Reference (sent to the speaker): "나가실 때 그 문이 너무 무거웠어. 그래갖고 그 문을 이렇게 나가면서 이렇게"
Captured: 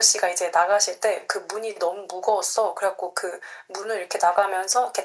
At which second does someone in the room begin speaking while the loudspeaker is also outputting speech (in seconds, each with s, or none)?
none